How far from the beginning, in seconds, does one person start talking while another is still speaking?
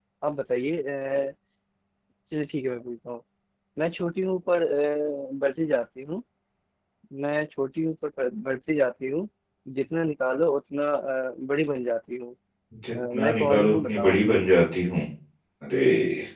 13 s

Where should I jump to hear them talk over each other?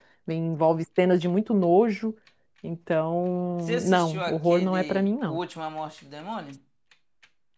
4 s

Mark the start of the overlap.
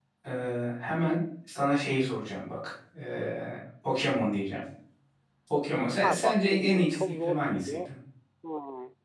6 s

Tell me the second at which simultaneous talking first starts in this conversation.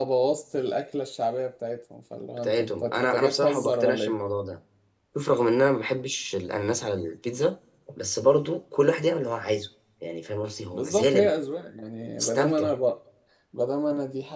2 s

